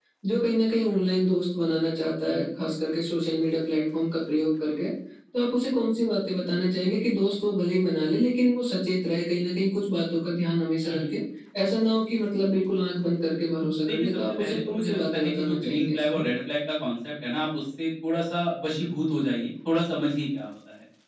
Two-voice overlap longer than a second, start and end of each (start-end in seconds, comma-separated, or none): 13.9-16.2